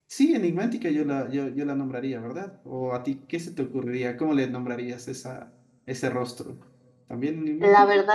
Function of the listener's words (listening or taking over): taking over